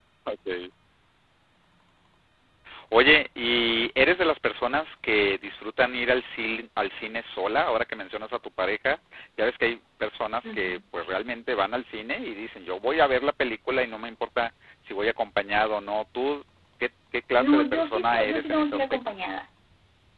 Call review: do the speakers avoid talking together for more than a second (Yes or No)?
No